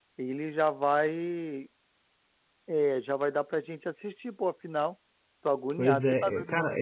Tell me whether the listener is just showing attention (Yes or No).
No